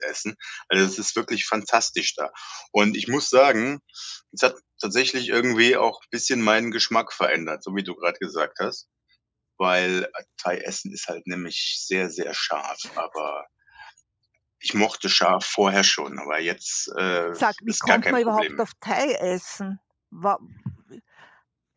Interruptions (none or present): present